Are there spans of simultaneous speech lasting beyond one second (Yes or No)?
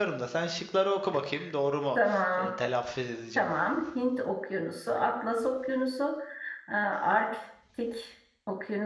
No